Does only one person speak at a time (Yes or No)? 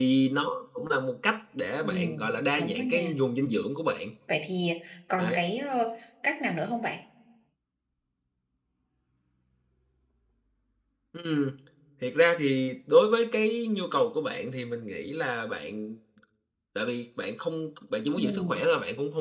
No